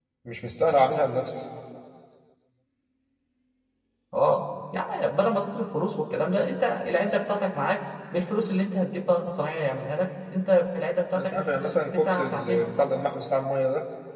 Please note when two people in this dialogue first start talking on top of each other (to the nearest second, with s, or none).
11 s